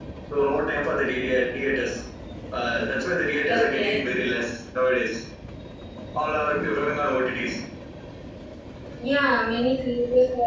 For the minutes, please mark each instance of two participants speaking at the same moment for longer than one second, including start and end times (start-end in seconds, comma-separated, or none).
none